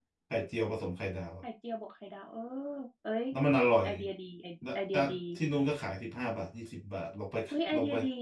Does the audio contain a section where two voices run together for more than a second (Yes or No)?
No